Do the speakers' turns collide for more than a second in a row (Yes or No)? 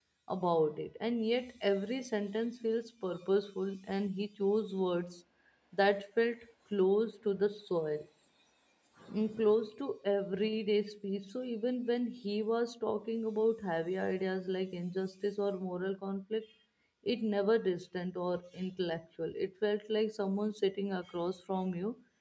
No